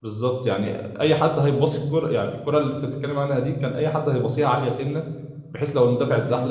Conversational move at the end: listening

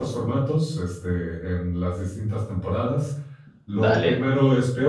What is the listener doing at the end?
listening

